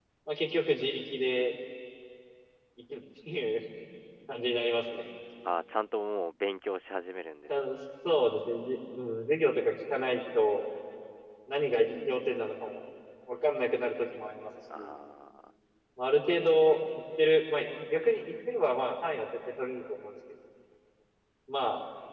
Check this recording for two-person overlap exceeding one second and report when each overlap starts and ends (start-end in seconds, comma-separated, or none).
none